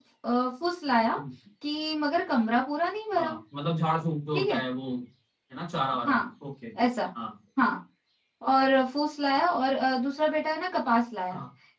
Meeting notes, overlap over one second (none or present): none